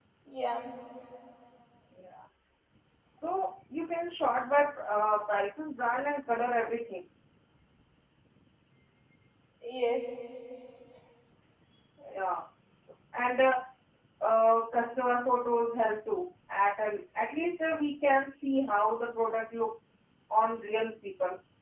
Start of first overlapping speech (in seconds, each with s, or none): none